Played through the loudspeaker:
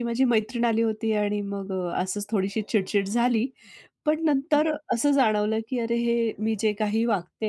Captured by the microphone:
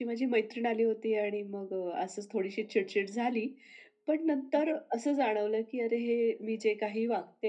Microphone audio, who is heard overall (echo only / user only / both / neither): echo only